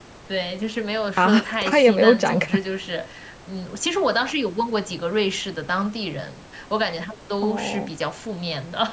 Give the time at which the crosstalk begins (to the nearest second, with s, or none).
1 s